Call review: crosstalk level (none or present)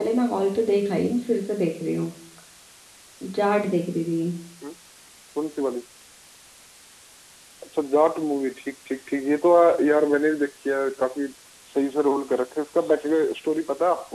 none